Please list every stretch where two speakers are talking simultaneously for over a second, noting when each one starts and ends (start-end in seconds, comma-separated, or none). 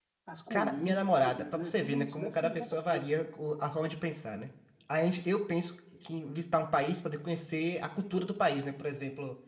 0.5-3.1